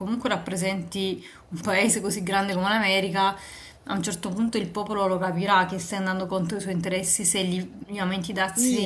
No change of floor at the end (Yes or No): No